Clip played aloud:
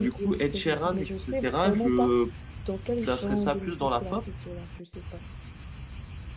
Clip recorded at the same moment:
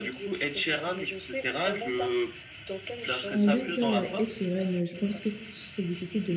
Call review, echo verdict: present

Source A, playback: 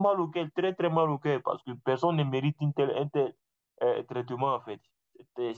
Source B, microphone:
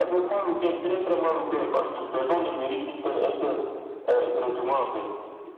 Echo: present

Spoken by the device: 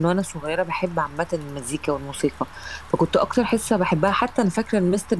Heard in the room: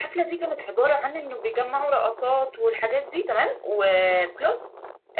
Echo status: none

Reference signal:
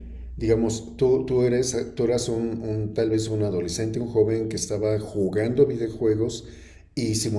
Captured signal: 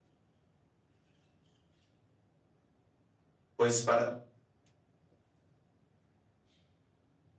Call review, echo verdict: none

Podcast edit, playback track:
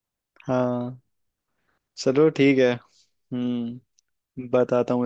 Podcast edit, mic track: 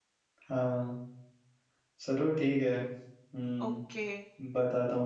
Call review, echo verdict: present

